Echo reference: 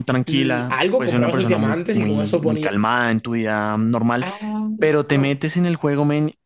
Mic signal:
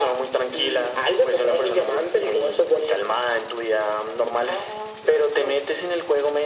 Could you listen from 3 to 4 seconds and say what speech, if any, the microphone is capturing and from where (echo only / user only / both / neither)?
echo only